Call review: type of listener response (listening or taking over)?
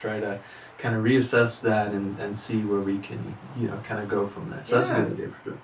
taking over